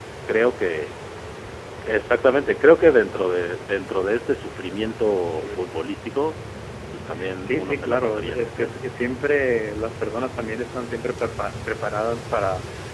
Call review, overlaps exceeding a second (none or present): present